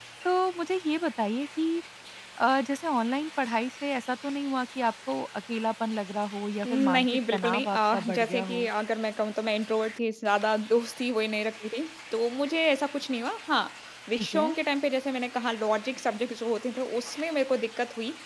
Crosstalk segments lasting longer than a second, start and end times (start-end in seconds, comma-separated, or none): 6.7-8.7